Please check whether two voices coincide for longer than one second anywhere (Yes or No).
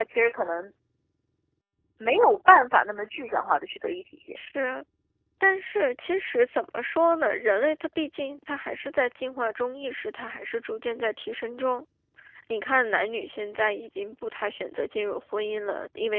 No